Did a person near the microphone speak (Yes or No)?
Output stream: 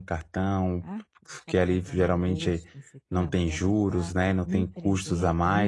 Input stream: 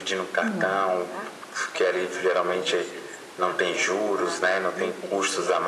Yes